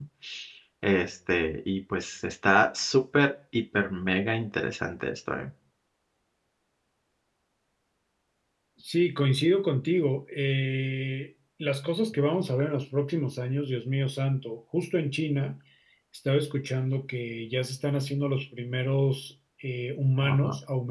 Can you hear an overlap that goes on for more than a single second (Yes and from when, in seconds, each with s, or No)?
No